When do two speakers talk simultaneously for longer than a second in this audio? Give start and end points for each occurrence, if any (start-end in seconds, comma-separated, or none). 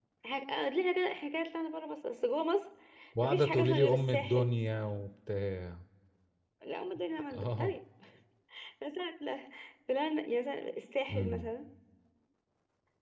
3.2-4.5